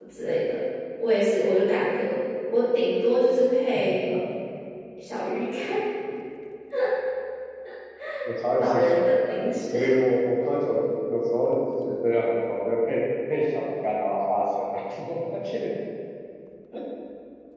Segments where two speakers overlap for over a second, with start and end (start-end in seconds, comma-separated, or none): 8.6-9.9